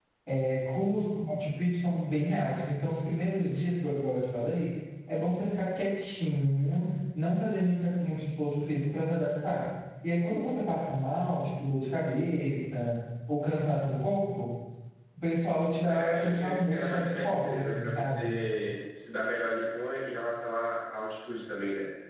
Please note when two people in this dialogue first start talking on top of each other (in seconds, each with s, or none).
15.9 s